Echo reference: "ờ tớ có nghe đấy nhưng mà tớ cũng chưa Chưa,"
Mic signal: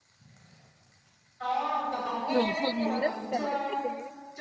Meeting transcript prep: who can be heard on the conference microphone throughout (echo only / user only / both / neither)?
both